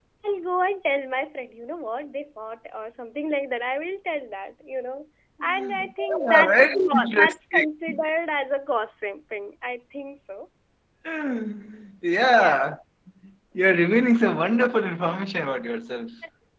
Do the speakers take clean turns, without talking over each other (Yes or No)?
No